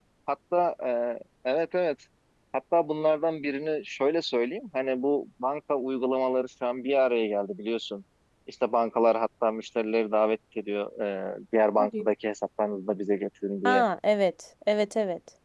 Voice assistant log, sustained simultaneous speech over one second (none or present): none